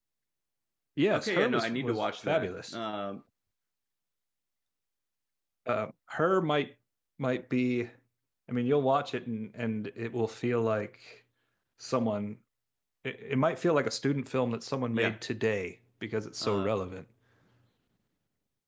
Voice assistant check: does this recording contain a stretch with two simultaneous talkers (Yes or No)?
Yes